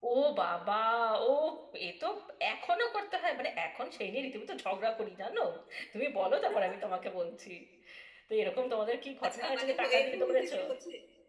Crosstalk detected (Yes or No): Yes